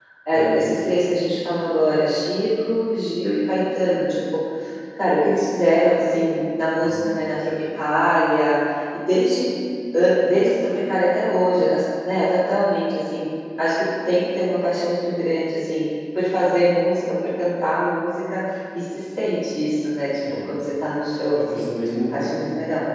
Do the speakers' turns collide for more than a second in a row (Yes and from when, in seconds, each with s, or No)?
No